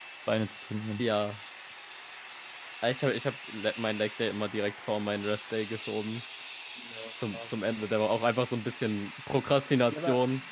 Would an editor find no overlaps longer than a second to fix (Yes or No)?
Yes